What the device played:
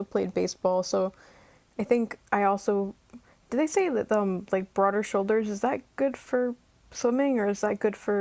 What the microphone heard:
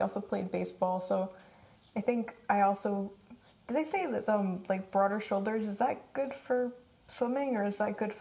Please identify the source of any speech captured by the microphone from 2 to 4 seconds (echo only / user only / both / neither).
echo only